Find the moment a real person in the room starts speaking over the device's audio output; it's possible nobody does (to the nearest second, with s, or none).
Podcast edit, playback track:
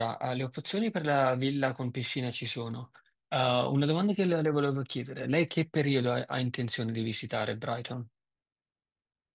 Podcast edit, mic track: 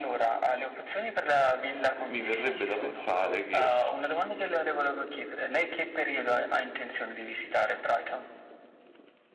2 s